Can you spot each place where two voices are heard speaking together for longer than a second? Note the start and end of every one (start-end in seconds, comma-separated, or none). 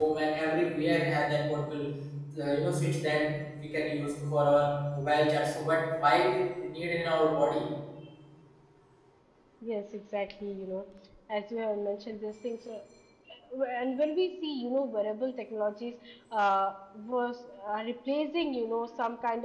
none